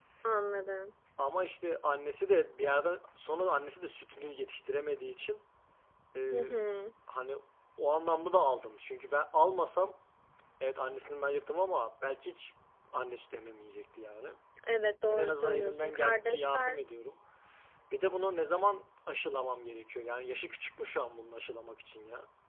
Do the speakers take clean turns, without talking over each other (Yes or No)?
No